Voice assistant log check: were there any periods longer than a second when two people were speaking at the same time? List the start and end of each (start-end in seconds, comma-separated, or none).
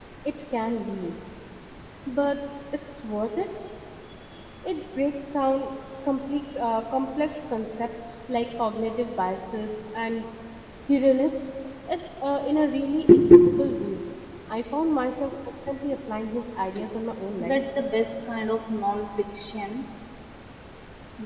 none